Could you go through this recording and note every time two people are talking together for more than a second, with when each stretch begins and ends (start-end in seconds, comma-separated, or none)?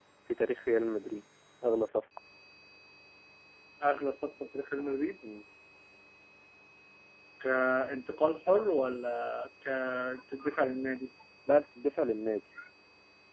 none